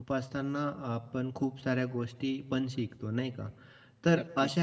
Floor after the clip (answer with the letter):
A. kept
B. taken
A